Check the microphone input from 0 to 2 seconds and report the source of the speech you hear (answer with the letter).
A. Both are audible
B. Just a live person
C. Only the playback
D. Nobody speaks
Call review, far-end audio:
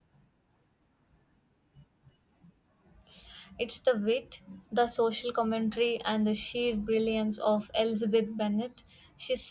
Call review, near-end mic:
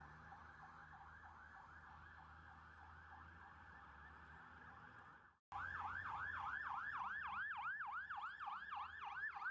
D